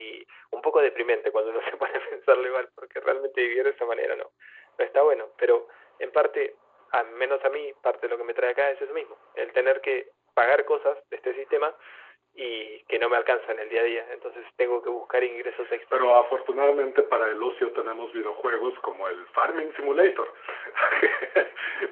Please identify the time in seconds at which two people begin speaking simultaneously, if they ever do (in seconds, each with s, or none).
none